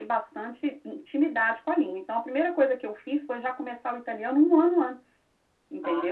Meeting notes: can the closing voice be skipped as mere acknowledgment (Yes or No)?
No